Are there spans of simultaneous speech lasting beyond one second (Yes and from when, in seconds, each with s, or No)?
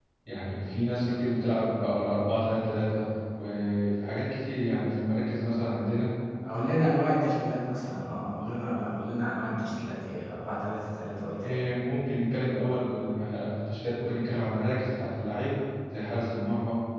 No